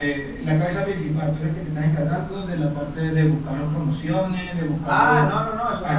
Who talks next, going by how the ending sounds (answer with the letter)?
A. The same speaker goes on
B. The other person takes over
B